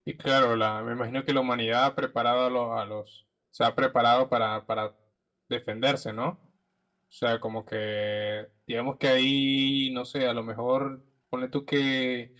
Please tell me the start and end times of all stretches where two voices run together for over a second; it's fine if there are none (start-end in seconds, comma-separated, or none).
none